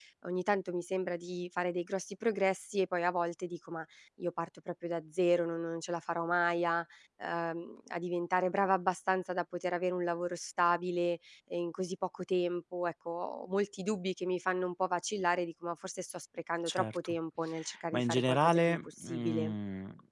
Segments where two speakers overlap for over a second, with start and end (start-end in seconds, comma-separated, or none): 17.9-19.5